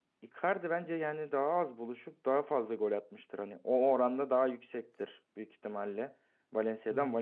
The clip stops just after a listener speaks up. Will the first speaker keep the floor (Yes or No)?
Yes